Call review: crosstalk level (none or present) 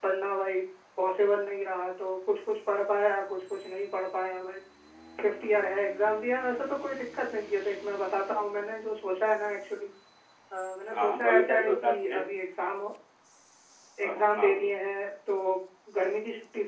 present